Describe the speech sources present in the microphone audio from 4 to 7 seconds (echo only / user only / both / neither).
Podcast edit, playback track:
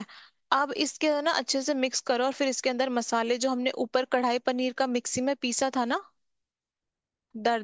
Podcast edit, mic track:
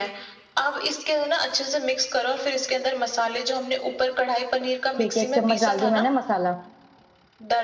both